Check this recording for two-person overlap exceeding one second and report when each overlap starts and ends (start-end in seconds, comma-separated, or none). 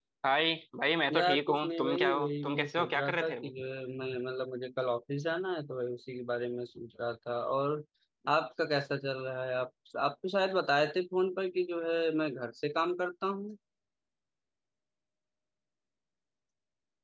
1.1-3.5